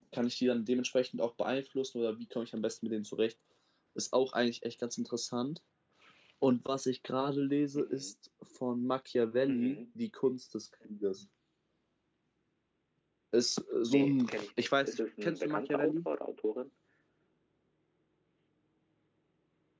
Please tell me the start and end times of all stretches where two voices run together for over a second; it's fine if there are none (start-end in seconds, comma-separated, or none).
13.9-16.1